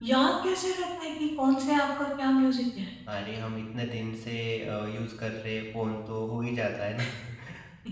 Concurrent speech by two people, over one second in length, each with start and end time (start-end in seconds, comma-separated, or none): none